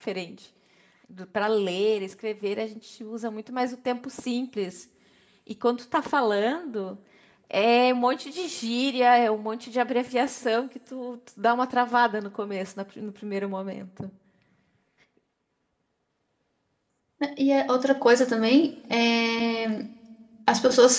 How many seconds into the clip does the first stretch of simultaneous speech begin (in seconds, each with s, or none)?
none